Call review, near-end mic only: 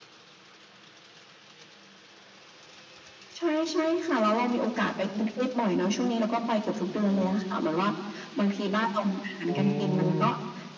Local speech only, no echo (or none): อ๋อ